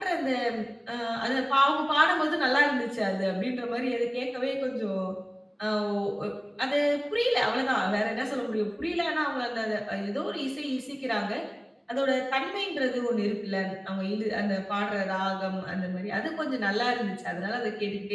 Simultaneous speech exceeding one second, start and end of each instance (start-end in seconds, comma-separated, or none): none